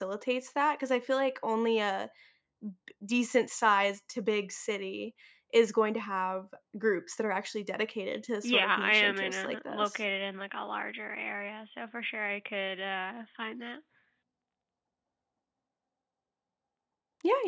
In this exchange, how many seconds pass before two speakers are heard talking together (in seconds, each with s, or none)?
8.4 s